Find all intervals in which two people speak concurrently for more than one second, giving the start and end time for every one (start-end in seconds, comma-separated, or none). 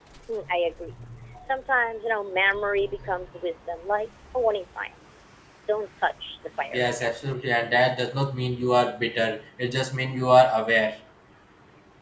none